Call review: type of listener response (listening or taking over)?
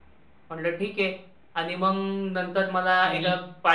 listening